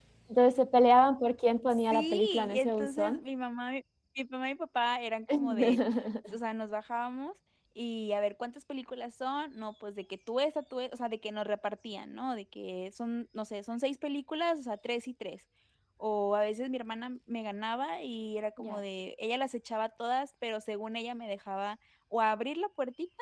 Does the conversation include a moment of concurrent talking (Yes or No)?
Yes